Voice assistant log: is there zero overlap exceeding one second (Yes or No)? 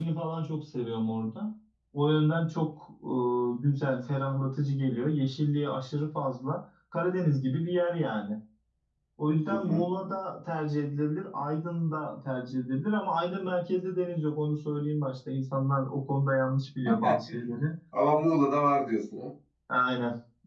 Yes